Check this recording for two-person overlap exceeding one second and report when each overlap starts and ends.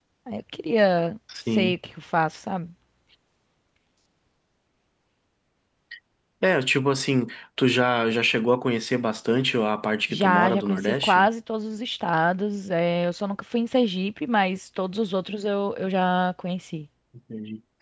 10.1-11.3

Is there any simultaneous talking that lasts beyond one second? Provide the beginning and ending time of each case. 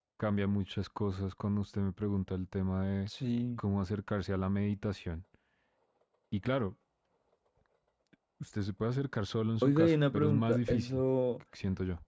9.6-11.0

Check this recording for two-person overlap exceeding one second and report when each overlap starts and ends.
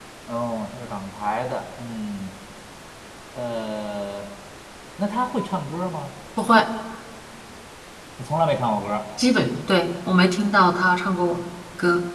none

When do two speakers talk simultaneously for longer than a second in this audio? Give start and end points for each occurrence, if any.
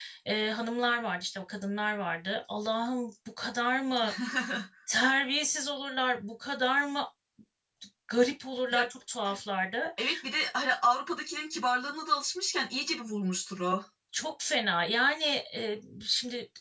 none

